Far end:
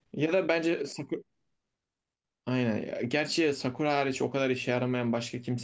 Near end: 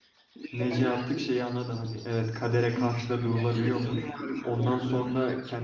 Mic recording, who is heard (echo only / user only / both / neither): both